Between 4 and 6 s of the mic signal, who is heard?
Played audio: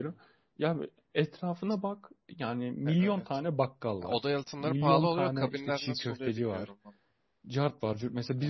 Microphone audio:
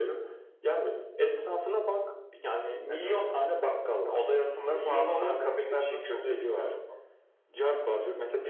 echo only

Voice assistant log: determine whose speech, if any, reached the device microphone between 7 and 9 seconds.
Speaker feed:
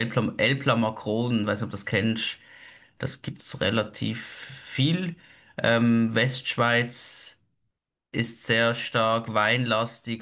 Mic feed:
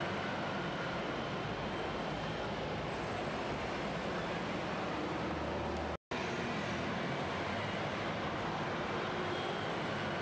neither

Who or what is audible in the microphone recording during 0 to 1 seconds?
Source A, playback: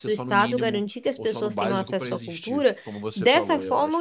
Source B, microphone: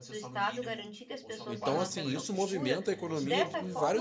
echo only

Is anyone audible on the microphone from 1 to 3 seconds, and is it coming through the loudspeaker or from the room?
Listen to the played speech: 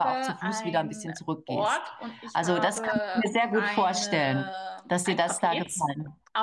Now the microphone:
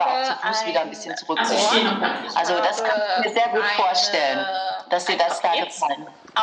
both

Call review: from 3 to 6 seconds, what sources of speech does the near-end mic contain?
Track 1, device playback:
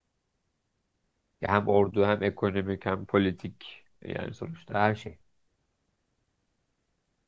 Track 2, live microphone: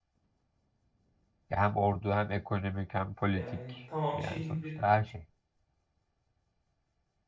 both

